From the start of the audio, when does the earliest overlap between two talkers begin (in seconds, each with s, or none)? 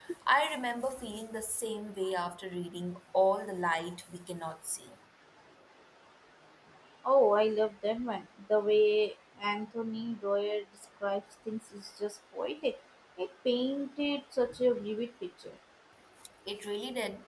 none